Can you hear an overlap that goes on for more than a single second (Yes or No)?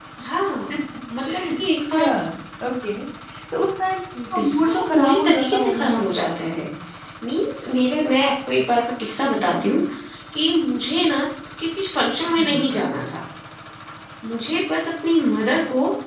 Yes